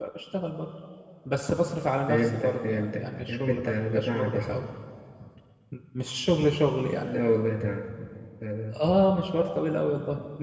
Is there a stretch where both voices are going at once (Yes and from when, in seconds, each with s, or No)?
Yes, from 2.1 s